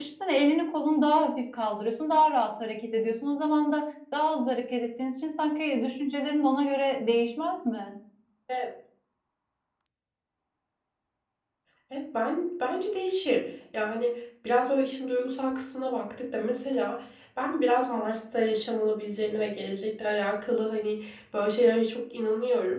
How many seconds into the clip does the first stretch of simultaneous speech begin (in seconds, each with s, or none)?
none